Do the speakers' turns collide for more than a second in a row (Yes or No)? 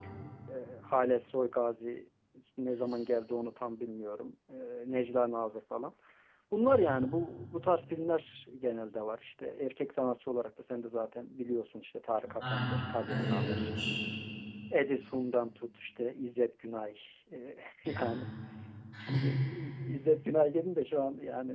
Yes